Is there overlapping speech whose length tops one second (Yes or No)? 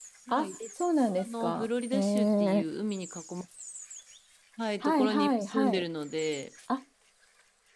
Yes